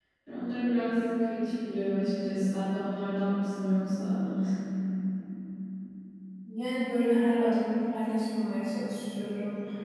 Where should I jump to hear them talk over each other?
none

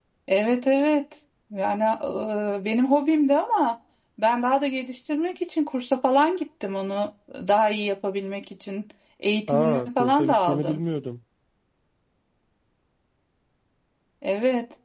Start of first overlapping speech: 9.5 s

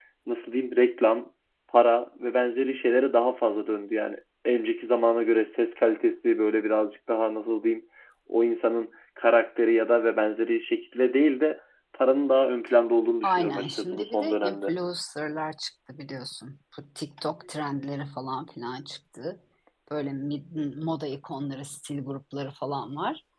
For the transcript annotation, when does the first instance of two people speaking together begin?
13.2 s

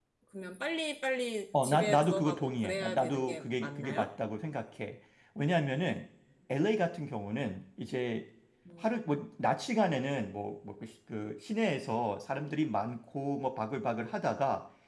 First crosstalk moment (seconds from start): 1.5 s

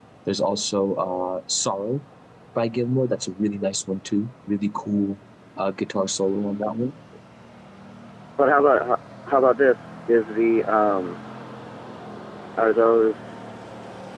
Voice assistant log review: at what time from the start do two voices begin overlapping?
none

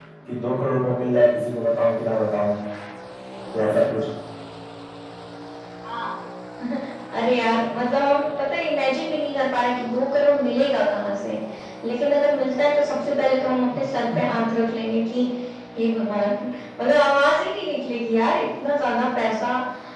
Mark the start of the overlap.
none

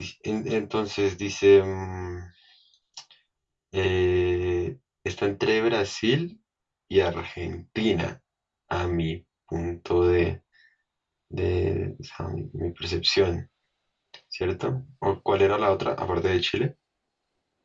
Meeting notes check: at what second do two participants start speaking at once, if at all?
none

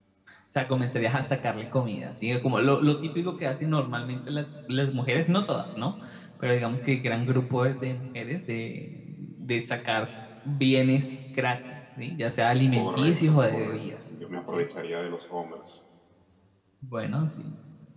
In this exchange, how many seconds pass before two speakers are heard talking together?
12.7 s

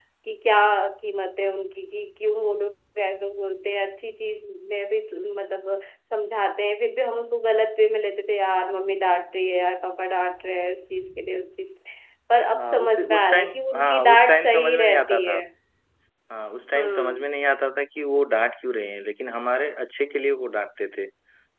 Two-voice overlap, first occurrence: 12.5 s

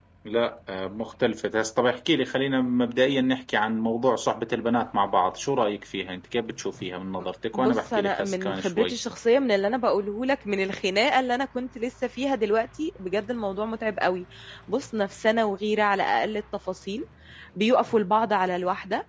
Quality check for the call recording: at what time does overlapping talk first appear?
7.5 s

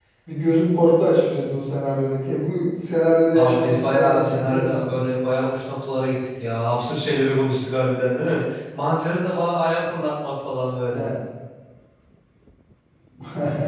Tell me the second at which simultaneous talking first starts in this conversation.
3.3 s

